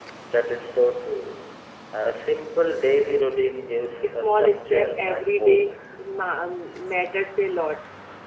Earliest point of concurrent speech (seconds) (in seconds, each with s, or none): 4.2 s